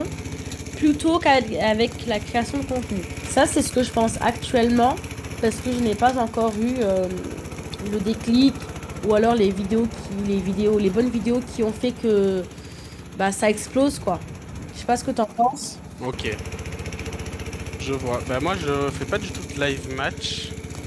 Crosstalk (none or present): none